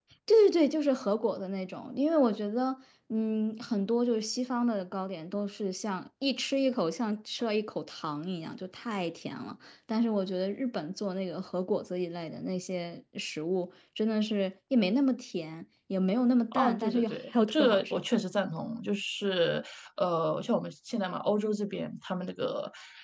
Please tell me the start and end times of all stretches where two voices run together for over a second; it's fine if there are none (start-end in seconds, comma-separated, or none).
16.5-18.0